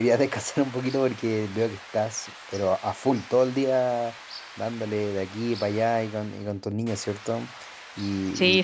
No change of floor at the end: No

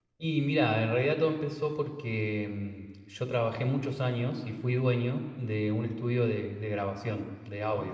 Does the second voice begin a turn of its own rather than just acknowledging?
No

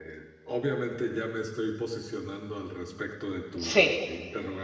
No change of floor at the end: Yes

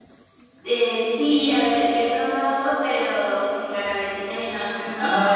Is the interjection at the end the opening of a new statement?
Yes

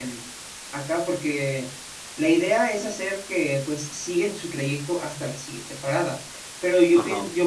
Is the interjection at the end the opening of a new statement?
No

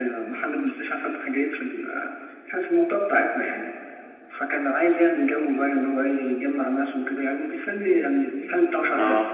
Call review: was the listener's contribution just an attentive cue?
Yes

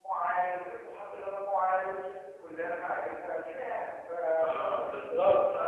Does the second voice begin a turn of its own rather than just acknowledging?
Yes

